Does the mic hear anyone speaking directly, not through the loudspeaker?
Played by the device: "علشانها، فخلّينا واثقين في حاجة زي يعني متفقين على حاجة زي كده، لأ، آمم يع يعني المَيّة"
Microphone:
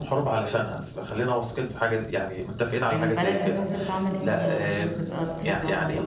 Yes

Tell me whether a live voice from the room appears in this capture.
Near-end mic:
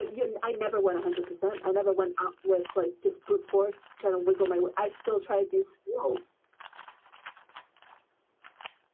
No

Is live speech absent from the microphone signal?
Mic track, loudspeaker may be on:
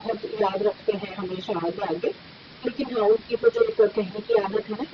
Yes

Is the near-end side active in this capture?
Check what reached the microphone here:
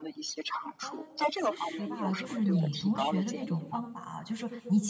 Yes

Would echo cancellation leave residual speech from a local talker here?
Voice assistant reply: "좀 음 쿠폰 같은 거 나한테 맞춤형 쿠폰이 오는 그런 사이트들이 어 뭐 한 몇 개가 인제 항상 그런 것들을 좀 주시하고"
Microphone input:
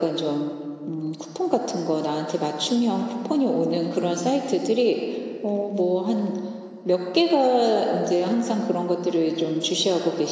No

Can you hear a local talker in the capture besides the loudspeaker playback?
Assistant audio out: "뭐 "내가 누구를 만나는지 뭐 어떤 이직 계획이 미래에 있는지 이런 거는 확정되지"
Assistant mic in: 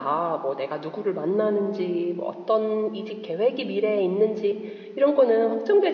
No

